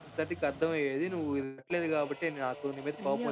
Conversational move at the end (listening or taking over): taking over